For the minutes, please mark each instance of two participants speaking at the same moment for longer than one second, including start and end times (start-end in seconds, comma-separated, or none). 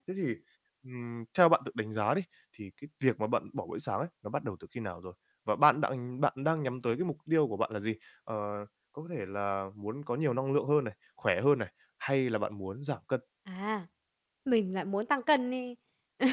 none